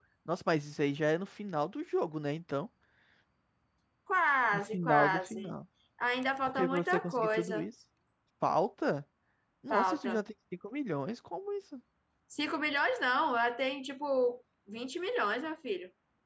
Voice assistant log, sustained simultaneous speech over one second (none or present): present